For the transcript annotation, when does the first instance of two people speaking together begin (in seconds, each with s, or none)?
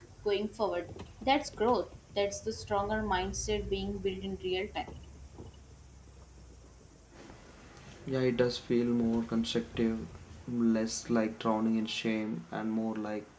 none